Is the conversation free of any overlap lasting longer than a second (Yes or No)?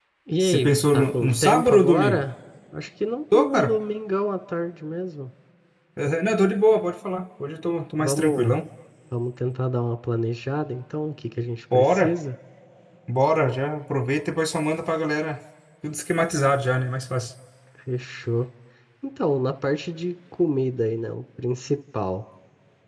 No